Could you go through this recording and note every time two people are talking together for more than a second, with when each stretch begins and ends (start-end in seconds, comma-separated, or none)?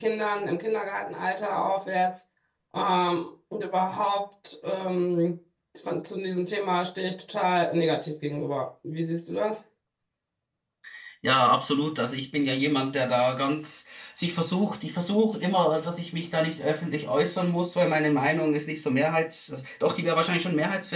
none